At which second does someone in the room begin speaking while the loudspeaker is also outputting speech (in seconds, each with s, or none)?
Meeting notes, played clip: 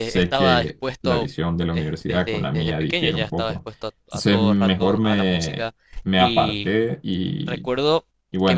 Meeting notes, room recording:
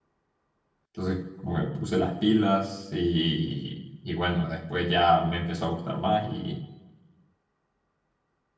0.9 s